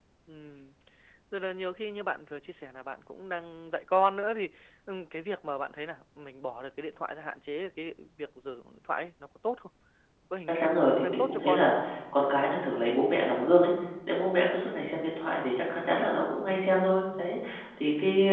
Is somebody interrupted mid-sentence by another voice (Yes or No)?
Yes